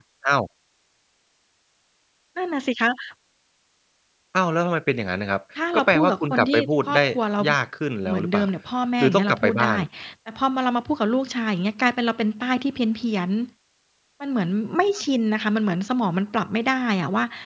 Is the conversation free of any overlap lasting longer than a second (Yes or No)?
No